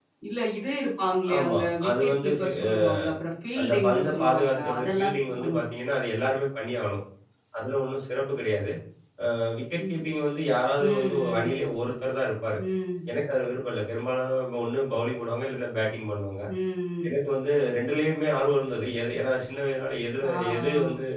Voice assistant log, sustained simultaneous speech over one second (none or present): present